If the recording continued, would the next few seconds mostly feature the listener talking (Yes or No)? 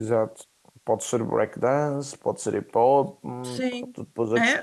Yes